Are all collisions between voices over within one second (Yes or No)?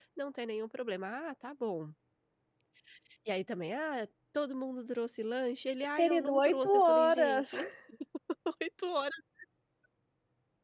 No